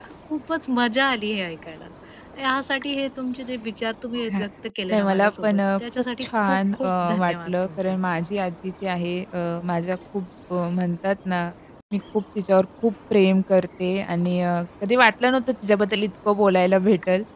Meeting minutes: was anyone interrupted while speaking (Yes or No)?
Yes